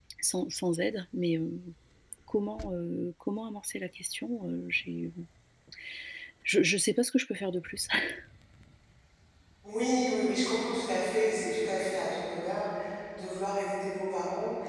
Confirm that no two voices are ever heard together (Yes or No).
Yes